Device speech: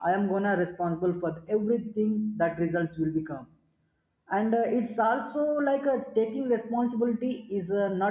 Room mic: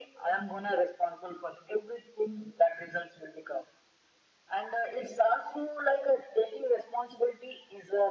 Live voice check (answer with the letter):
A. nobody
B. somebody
A